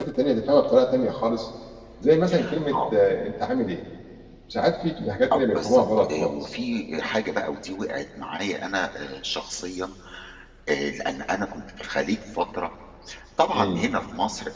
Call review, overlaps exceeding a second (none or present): present